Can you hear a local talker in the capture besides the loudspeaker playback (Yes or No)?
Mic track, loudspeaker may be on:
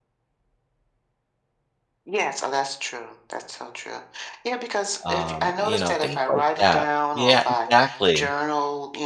Yes